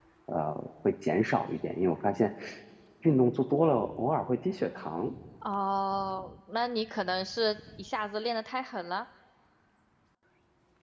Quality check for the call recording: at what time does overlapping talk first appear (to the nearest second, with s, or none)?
none